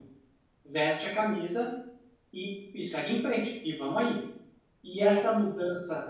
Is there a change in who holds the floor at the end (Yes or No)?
No